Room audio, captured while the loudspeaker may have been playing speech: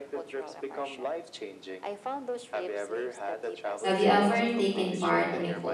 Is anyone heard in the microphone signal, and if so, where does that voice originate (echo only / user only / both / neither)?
both